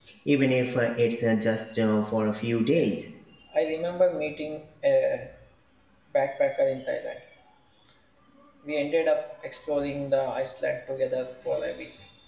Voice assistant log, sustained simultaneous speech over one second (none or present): none